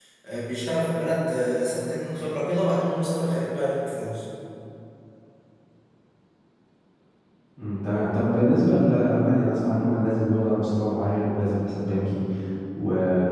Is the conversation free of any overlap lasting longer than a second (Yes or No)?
Yes